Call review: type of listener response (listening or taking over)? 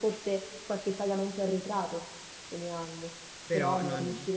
listening